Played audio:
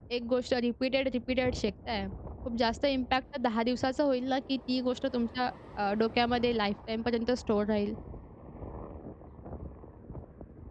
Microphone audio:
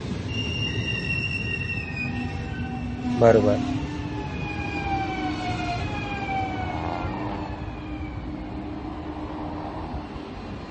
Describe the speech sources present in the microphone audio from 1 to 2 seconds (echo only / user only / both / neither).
neither